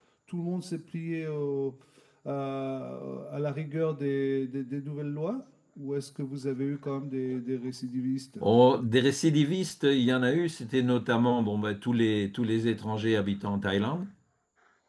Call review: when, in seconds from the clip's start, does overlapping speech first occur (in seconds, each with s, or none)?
none